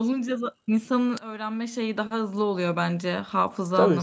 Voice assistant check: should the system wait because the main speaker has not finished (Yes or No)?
No